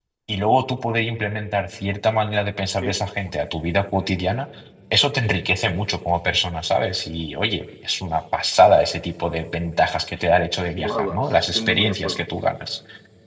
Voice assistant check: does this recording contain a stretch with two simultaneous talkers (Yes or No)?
Yes